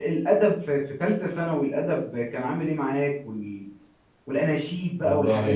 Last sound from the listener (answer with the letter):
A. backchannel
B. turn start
B